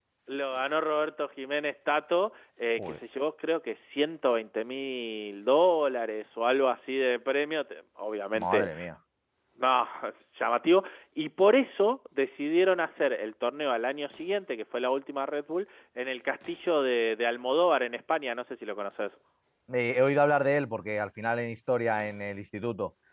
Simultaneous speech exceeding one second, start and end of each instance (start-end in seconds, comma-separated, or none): none